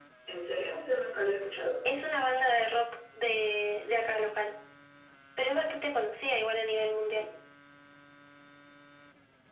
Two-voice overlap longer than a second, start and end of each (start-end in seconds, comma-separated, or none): none